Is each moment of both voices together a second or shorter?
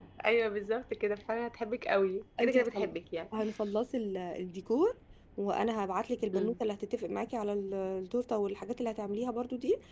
Yes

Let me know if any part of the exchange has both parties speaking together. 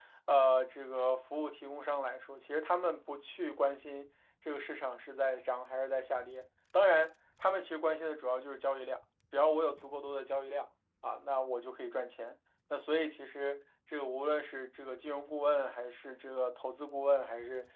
No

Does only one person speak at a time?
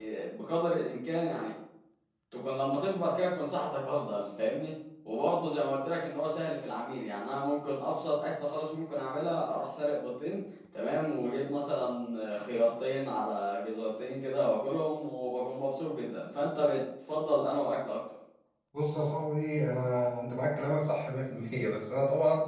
Yes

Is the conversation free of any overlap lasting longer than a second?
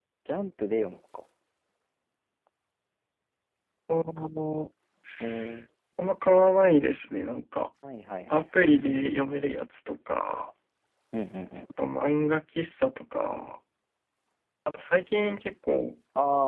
Yes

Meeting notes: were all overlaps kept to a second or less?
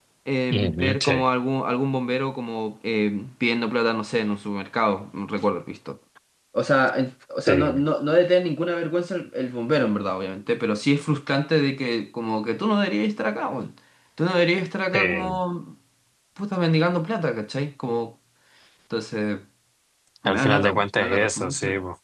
No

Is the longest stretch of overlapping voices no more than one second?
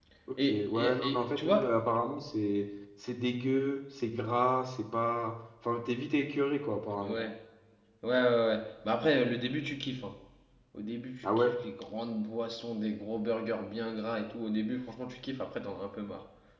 No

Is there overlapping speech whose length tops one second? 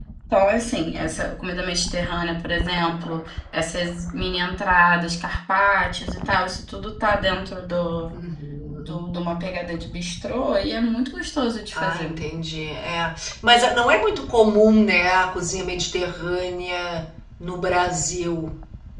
No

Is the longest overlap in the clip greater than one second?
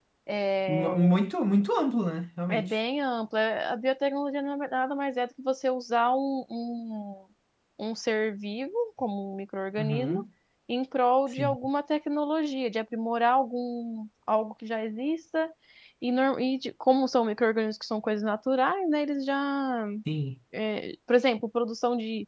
No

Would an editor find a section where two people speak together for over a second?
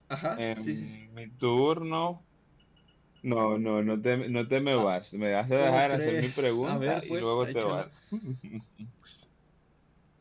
Yes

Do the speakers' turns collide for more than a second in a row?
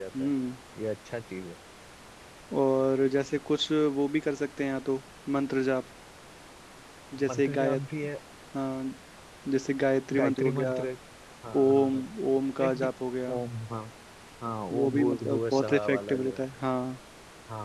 Yes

